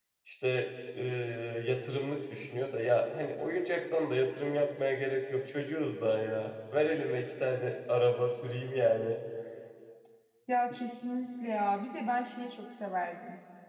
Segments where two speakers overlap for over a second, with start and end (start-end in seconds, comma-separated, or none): none